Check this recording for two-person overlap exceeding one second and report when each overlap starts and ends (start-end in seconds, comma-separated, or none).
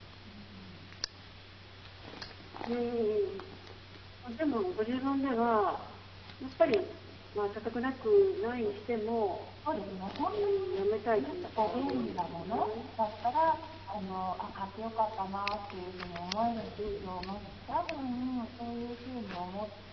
11.2-12.7